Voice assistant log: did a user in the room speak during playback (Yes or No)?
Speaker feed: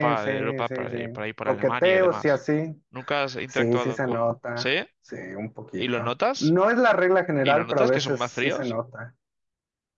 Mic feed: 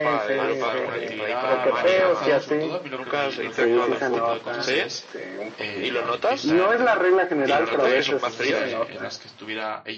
Yes